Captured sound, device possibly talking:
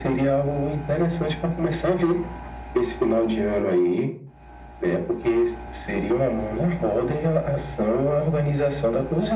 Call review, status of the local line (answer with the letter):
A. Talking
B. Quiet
B